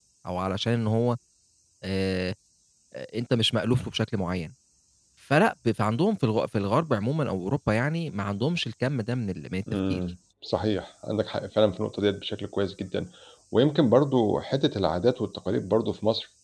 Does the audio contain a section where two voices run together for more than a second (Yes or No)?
No